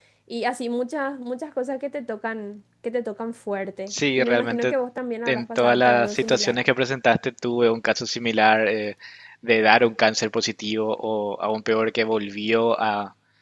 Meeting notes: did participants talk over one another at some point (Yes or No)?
Yes